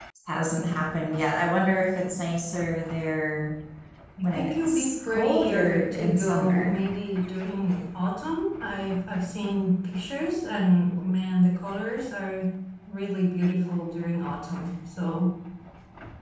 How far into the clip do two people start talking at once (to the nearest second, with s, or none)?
4 s